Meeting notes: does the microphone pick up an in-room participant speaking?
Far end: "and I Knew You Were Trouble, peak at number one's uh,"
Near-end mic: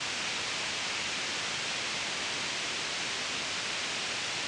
No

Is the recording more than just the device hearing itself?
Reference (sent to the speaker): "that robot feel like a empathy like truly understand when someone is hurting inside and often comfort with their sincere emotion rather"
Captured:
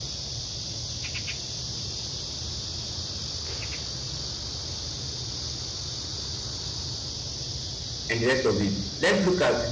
Yes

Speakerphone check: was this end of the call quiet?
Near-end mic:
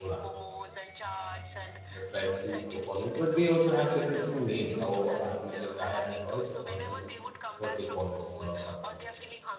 No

